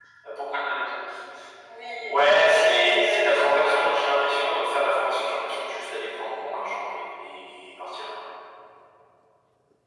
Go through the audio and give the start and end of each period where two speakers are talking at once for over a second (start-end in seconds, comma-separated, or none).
2.3-4.2